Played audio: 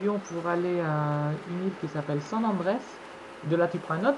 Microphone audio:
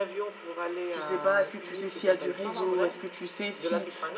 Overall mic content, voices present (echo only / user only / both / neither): both